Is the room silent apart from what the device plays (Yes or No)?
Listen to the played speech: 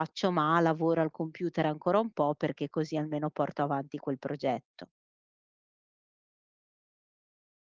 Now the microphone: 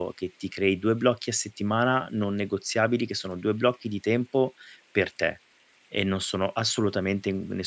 No